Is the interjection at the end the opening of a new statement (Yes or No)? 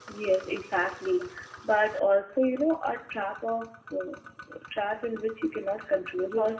Yes